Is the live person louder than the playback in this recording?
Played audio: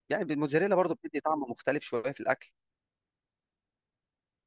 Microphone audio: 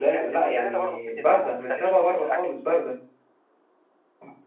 Yes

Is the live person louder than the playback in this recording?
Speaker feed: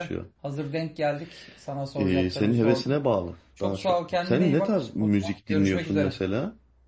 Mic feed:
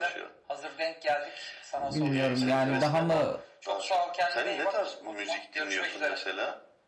Yes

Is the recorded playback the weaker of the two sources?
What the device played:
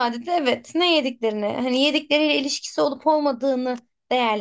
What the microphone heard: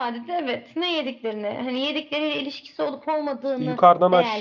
Yes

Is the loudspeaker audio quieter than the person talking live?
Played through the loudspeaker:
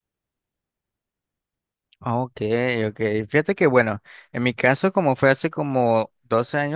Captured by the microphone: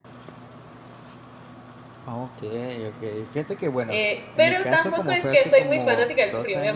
Yes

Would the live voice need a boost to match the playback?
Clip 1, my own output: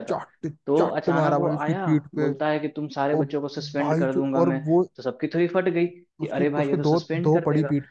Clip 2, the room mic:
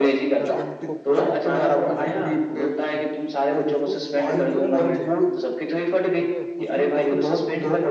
Yes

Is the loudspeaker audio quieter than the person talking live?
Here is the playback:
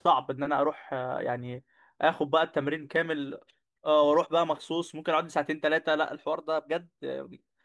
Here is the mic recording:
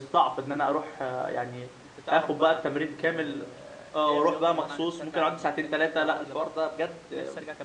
No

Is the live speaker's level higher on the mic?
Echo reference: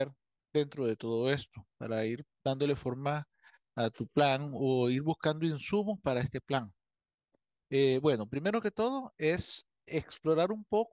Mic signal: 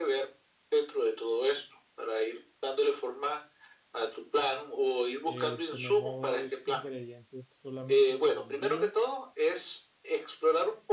No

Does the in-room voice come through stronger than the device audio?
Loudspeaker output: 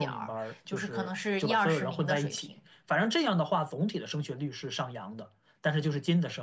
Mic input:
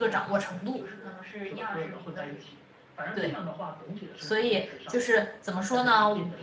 Yes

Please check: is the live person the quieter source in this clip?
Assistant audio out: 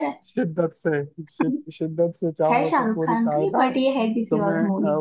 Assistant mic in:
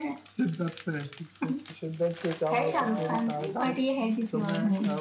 Yes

